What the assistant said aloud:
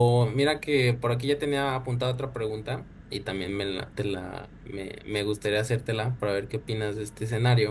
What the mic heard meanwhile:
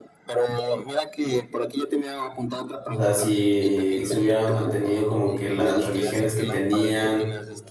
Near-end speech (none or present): present